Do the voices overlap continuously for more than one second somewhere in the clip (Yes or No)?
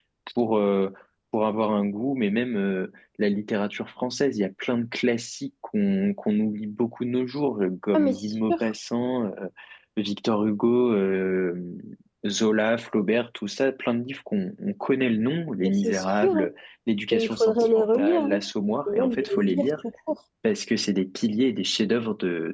Yes